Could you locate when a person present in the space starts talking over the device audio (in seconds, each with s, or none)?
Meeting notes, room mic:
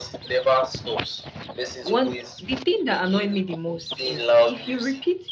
1.8 s